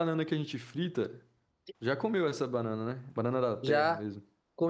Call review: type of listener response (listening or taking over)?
taking over